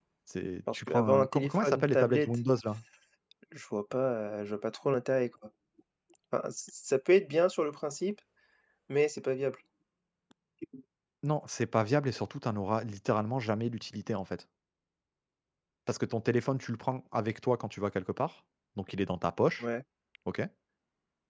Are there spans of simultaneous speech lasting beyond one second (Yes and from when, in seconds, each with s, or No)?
Yes, from 0.7 s